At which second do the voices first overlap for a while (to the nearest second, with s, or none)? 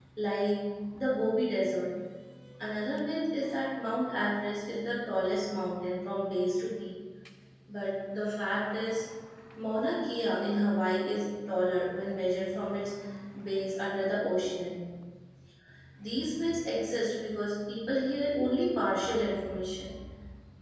none